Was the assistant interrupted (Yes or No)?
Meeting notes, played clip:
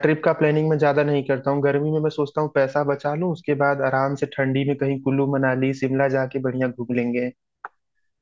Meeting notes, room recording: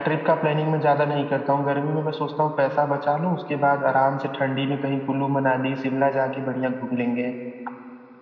No